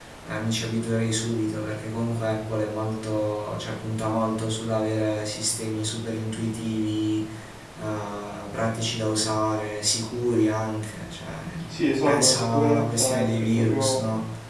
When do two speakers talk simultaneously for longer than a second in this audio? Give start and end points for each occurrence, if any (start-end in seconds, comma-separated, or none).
12.1-14.0